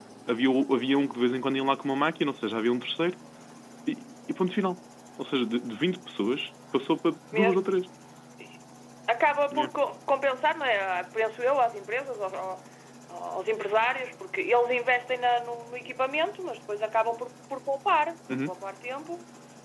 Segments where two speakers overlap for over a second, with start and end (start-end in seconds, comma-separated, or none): none